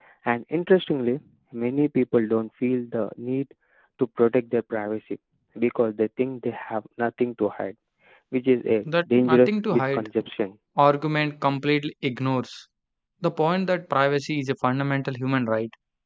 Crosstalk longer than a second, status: present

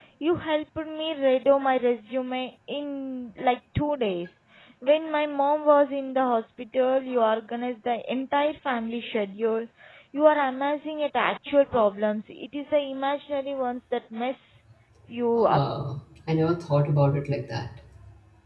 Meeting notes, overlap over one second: none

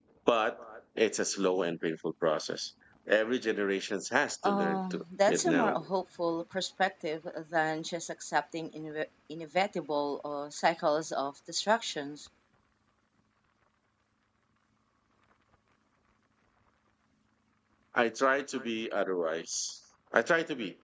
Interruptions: present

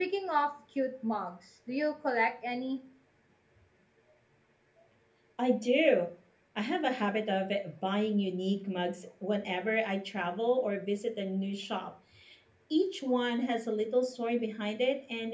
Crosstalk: none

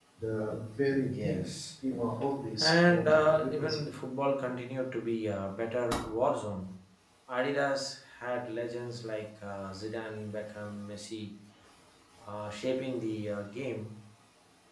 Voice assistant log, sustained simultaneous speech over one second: present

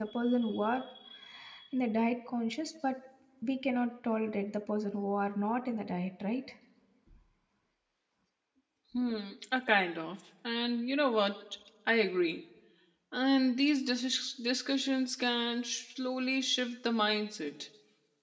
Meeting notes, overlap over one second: none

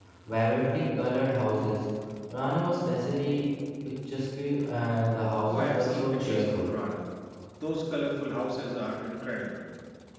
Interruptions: present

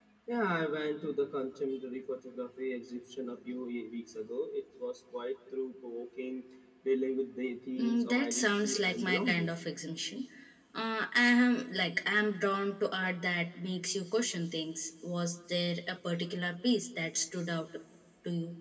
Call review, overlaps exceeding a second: present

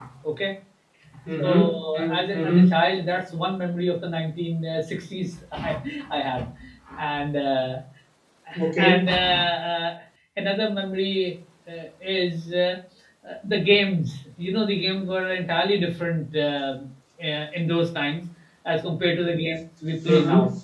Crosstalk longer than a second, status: present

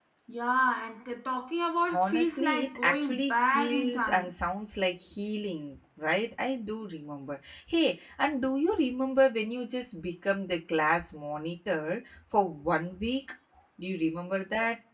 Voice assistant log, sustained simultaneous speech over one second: present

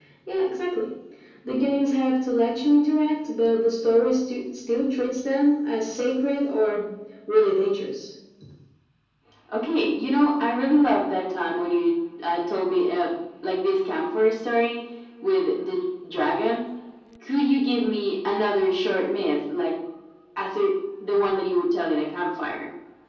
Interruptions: none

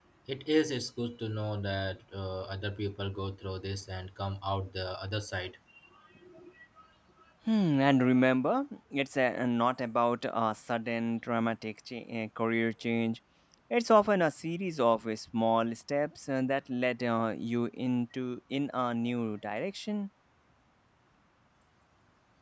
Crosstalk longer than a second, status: none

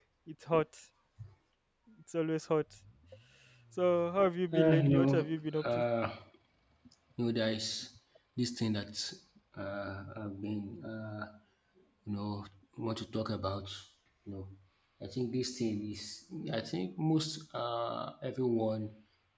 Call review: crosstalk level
present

